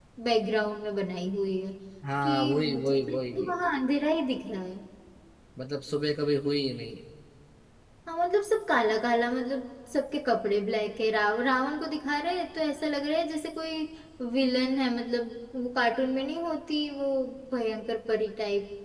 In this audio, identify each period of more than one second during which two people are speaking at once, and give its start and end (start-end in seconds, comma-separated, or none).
2.2-3.5